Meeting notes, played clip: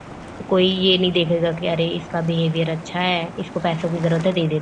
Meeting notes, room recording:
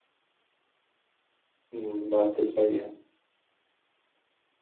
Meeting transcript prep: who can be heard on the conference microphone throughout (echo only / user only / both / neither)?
user only